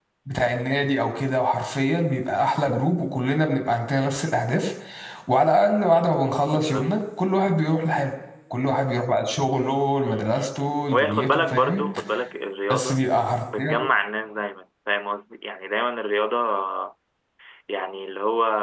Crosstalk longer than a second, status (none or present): present